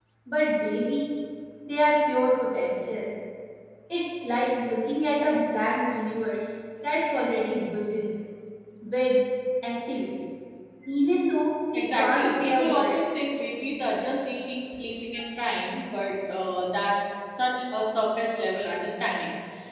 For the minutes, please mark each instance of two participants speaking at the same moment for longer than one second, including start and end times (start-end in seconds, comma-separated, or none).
11.7-12.9